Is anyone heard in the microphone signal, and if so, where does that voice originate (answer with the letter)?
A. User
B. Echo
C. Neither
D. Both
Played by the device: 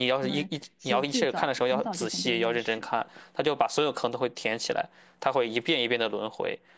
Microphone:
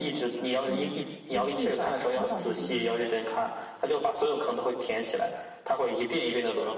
B